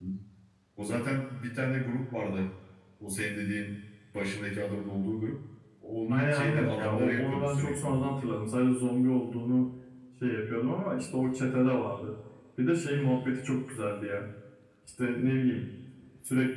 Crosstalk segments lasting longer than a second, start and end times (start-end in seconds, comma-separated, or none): 6.1-8.1